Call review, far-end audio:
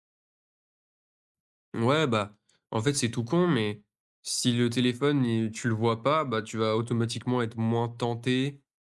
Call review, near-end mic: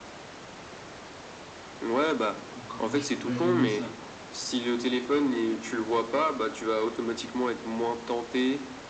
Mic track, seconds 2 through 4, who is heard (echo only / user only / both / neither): both